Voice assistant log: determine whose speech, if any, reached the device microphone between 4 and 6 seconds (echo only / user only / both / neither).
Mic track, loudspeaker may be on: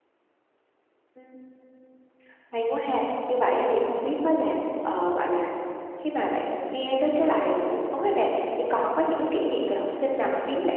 user only